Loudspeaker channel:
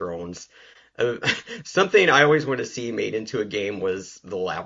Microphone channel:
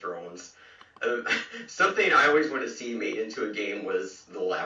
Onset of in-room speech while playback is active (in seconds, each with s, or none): none